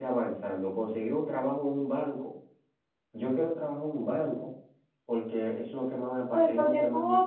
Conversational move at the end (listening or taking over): taking over